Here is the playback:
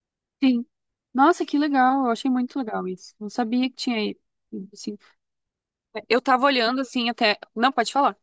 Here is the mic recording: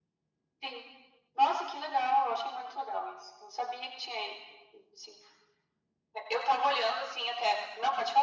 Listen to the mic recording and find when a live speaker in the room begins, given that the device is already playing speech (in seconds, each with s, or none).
none